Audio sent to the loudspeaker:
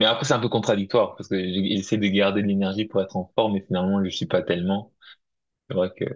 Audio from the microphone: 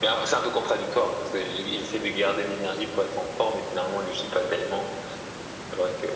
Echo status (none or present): present